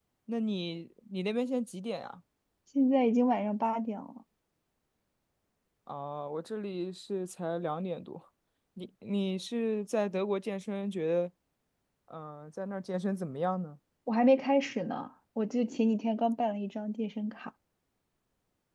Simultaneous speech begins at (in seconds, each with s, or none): none